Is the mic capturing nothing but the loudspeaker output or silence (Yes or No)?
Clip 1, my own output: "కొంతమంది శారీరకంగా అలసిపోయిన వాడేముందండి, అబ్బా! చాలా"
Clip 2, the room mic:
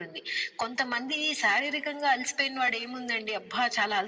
Yes